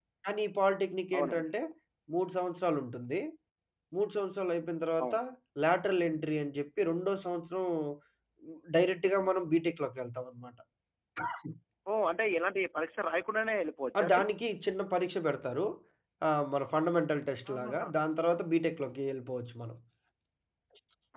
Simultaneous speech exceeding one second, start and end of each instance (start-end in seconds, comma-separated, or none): none